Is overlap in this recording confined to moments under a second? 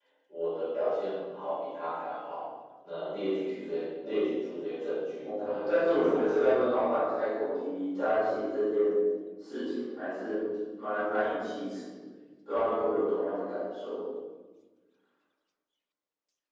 No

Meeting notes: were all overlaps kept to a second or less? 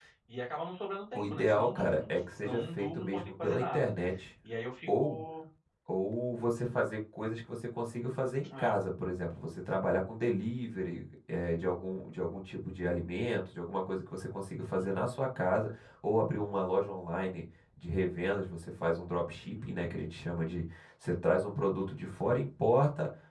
No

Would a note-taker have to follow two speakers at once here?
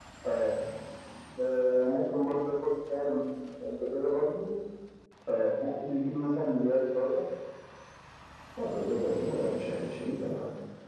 No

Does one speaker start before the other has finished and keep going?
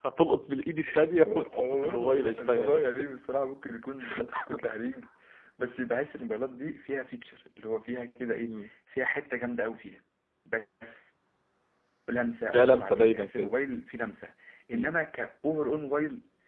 Yes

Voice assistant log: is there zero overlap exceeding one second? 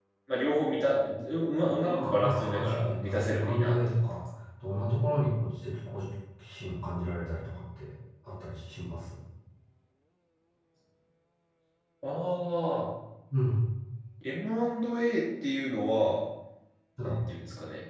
No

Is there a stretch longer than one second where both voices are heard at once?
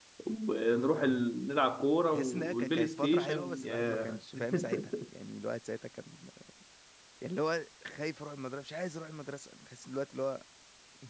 Yes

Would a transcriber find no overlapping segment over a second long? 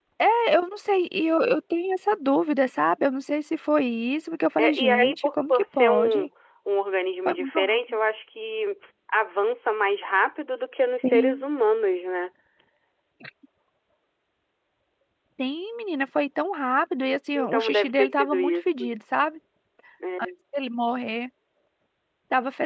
No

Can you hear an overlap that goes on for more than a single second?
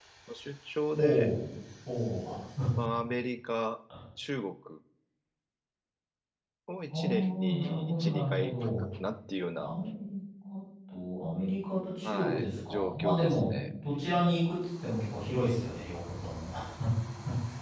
Yes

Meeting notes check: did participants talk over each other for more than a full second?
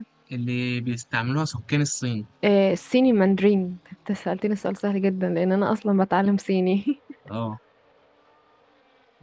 No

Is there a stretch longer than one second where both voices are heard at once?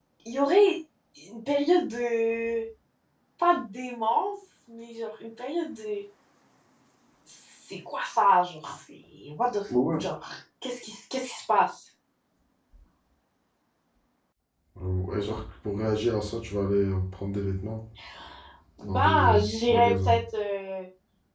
Yes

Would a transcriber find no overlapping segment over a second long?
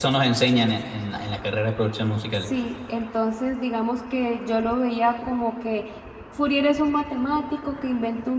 Yes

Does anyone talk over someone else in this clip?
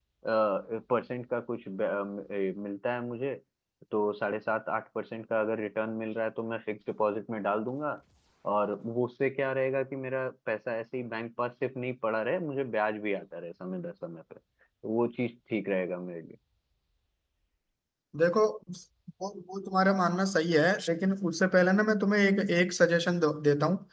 No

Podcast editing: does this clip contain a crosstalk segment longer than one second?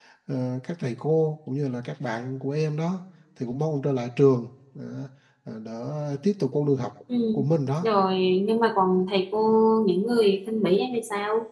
No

